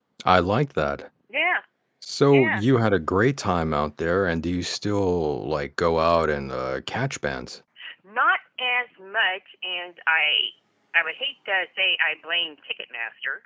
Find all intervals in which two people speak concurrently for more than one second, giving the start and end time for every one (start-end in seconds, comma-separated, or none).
none